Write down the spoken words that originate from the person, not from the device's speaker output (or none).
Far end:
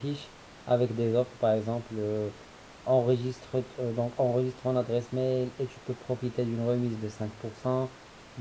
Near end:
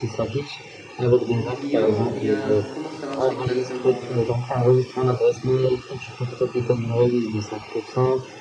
vos clients ou bien comment ça marche exactement? euh